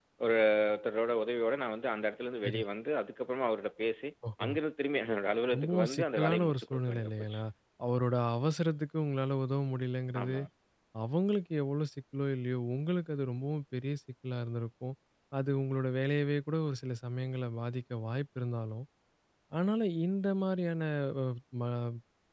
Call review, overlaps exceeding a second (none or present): present